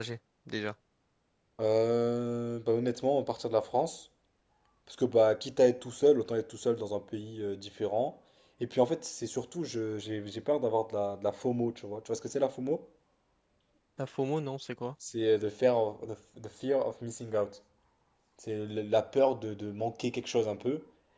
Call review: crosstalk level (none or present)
none